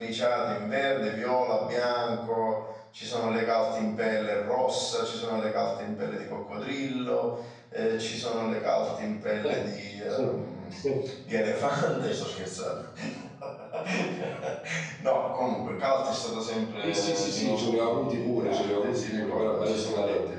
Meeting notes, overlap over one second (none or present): present